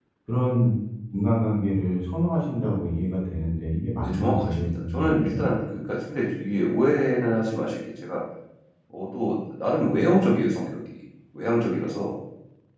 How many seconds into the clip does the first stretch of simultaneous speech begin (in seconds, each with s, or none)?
4.0 s